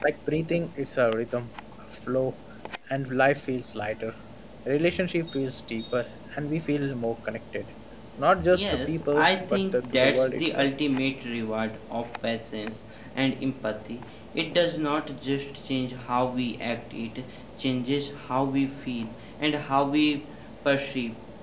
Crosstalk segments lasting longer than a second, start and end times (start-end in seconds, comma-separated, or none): 8.5-10.7